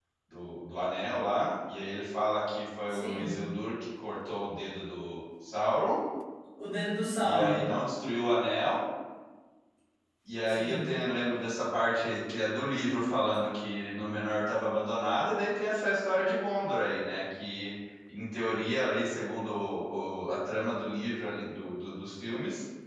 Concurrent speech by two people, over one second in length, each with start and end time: none

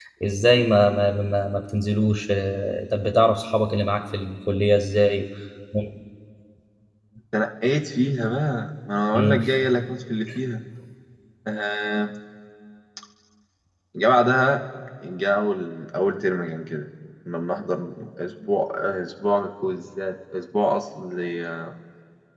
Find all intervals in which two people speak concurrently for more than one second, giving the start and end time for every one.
none

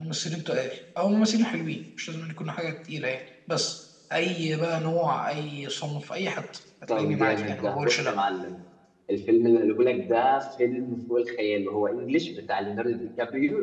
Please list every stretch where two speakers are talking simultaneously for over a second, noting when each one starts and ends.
6.9-8.1

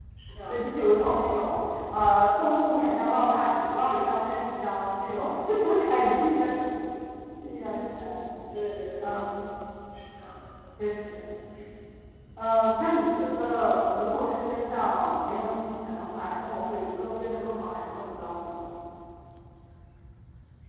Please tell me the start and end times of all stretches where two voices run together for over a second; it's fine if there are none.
none

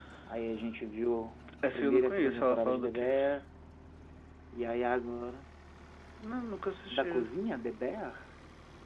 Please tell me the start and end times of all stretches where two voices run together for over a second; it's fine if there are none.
1.6-3.1

